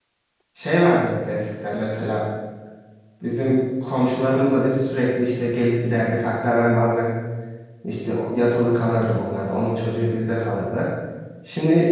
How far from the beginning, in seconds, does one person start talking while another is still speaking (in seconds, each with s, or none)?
none